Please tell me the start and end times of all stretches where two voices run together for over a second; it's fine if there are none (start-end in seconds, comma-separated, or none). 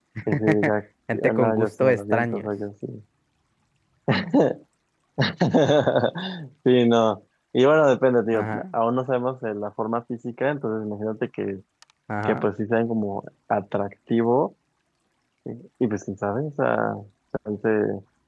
1.3-2.5